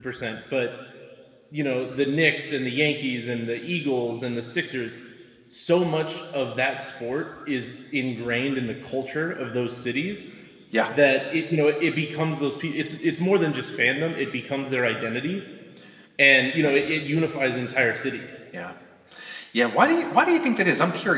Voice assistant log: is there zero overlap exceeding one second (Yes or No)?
Yes